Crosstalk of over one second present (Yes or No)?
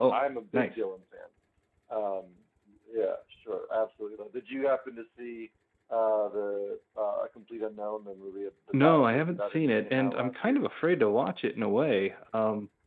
Yes